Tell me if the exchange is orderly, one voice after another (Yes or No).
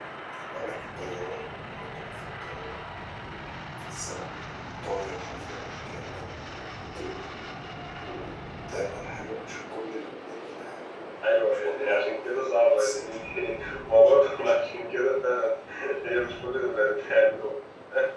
No